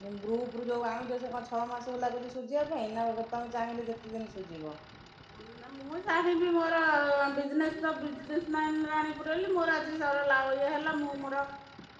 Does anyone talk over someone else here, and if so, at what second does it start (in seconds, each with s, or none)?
none